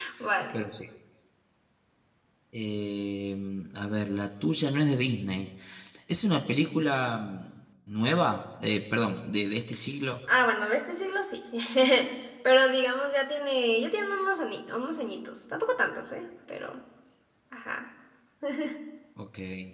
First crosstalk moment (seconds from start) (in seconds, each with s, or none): none